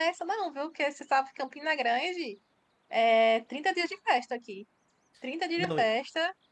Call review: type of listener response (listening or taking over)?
listening